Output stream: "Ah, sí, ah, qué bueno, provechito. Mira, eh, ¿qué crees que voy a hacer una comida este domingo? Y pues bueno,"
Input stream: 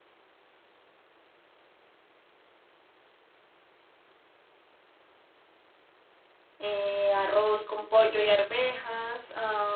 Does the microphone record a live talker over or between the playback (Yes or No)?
Yes